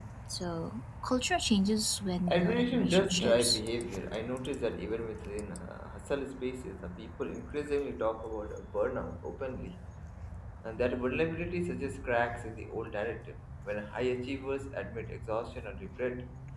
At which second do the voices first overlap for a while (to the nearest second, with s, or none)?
2 s